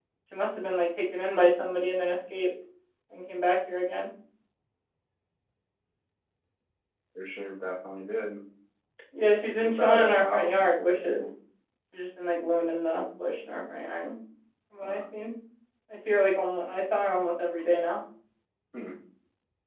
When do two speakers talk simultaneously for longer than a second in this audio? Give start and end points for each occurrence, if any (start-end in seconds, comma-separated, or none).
9.4-11.3